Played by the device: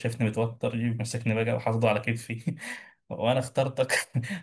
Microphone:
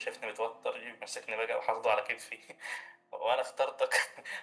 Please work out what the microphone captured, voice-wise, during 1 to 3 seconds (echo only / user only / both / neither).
echo only